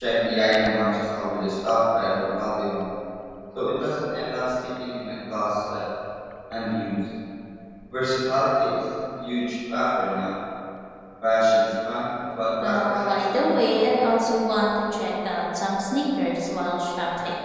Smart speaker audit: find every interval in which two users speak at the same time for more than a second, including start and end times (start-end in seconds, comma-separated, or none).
12.6-13.9